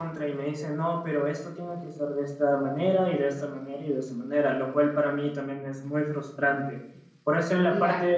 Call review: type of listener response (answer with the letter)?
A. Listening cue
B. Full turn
A